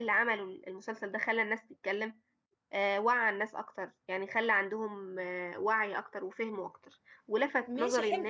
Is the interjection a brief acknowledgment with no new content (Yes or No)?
Yes